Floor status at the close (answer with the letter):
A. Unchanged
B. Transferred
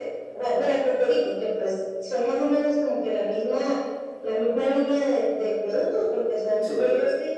A